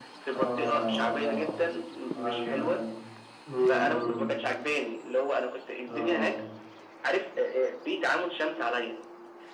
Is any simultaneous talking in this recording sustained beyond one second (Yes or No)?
Yes